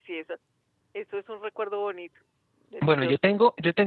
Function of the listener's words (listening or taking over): taking over